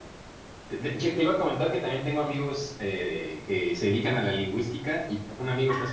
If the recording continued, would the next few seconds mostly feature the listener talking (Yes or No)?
No